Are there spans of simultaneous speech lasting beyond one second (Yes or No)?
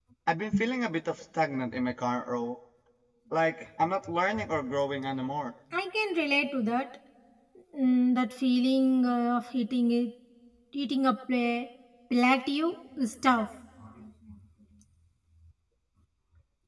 No